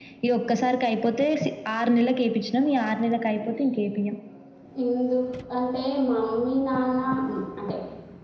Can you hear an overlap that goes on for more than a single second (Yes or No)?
No